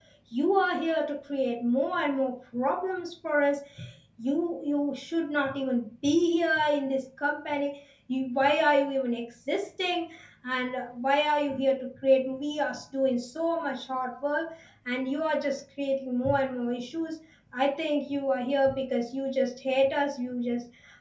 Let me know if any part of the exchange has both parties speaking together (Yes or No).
No